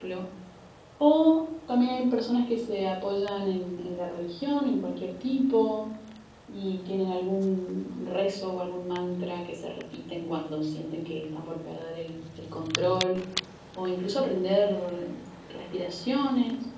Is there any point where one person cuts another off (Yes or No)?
No